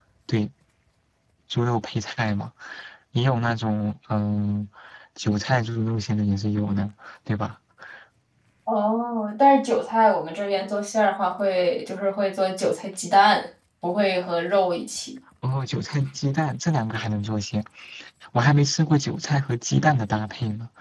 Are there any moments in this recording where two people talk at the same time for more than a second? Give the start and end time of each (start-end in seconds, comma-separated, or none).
none